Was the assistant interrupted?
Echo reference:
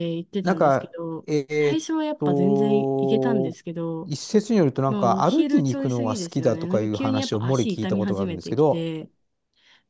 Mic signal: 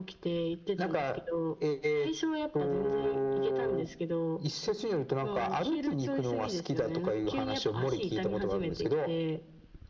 No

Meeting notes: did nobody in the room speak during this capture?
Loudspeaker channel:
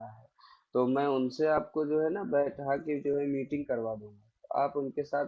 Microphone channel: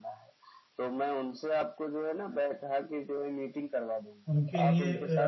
No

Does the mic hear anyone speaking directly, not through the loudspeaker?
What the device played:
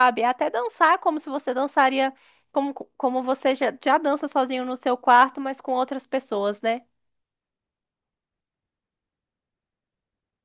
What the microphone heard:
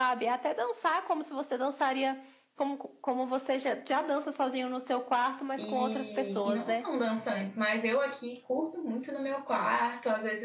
Yes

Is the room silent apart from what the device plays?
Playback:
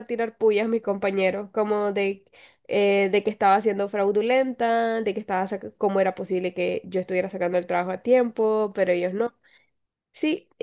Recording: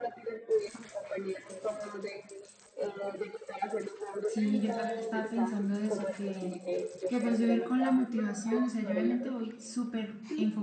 No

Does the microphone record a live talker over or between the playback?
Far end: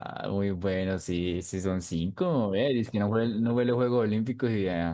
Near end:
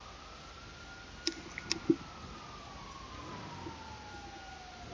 No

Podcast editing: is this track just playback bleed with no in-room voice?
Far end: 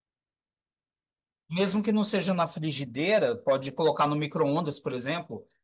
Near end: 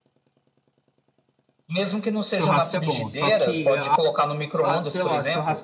No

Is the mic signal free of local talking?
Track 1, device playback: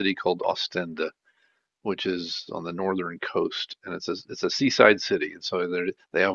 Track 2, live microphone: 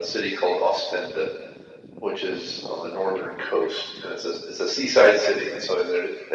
Yes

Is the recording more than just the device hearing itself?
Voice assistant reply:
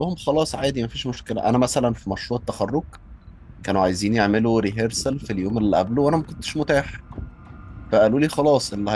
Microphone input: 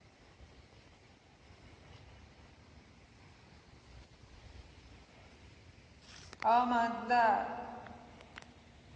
Yes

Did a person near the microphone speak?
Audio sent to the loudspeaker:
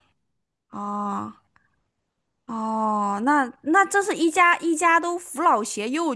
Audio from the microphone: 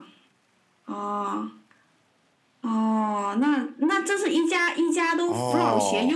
Yes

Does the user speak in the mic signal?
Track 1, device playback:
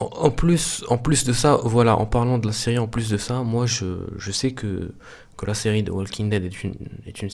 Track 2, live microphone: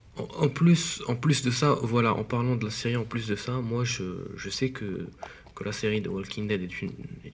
No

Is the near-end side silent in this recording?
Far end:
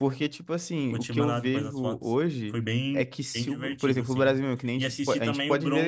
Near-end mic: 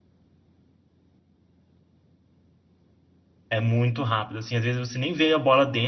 No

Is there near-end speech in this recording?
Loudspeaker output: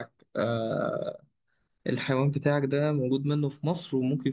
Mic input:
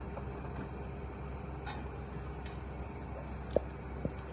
No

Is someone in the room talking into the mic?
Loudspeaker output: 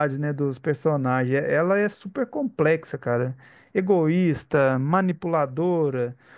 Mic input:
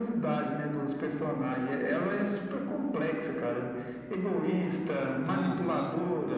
Yes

